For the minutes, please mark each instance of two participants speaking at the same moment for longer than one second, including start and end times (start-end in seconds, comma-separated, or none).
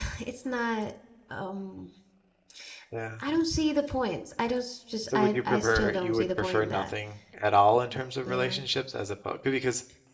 5.2-6.9